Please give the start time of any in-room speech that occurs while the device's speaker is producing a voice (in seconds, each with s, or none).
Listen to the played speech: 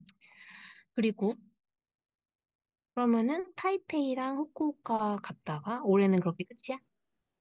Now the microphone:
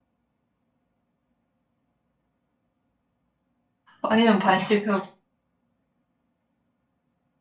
4.0 s